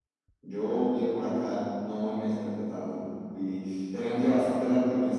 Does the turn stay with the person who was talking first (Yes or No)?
Yes